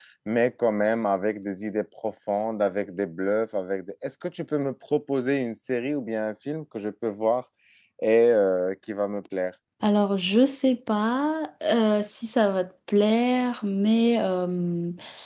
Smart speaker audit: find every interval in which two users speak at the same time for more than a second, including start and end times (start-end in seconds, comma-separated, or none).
none